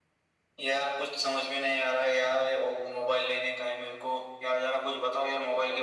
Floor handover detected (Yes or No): No